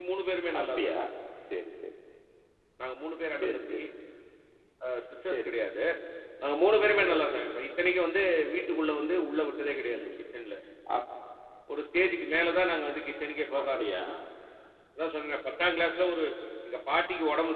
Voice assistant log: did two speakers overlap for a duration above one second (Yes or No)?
No